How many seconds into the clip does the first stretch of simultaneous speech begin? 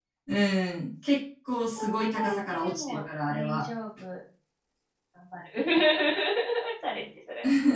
1.8 s

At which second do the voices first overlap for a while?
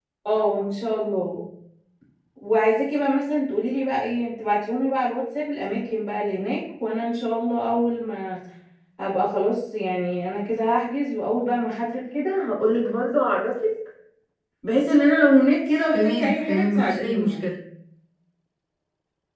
15.9 s

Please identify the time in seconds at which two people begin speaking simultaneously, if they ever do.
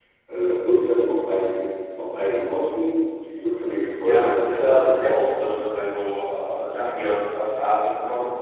4.0 s

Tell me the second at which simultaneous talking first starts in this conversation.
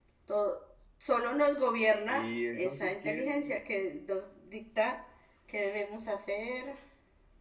2.1 s

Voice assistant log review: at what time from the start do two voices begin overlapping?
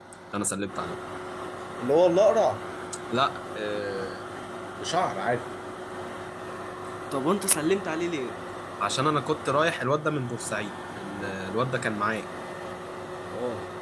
none

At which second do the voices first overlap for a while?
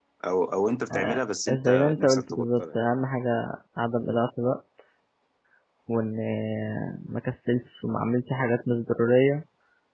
0.9 s

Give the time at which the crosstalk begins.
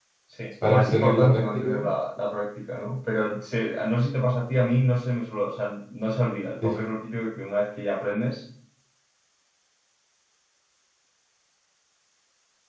0.6 s

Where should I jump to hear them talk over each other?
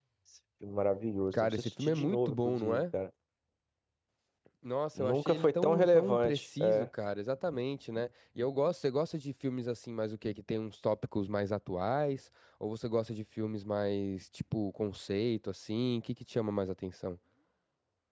1.3 s

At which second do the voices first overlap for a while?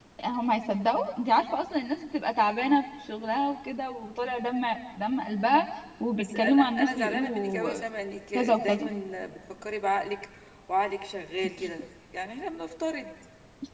6.2 s

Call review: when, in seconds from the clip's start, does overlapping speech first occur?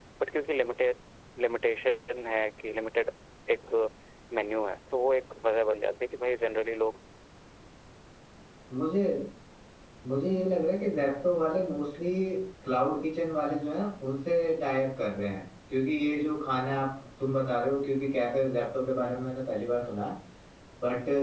none

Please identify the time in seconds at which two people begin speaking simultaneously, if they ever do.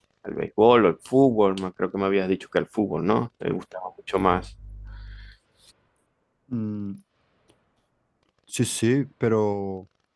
none

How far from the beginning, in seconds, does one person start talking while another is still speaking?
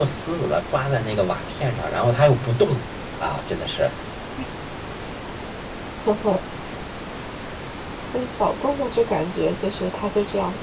none

